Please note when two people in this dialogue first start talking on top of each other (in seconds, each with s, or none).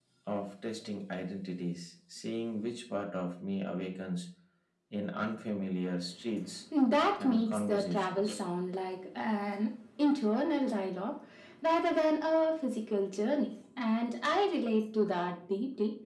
7.2 s